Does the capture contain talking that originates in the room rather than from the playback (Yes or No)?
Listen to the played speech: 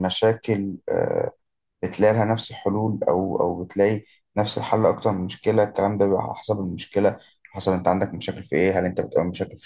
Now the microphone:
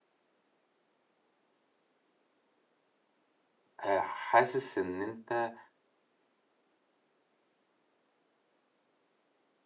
Yes